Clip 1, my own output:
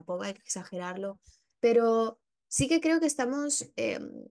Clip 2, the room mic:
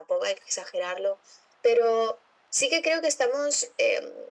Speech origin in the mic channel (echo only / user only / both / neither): echo only